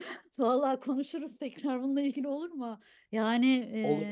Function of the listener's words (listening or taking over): listening